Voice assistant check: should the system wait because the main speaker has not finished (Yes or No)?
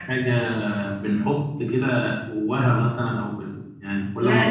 No